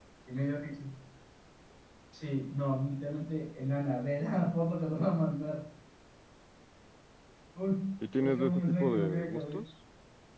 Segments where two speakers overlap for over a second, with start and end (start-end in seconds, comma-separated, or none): 8.2-9.6